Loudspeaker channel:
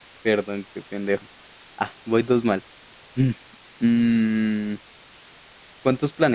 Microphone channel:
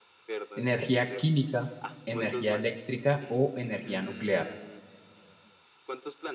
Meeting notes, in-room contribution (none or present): present